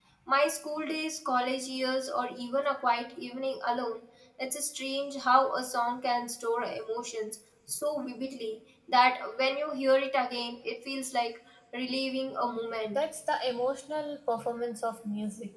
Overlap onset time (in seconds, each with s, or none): none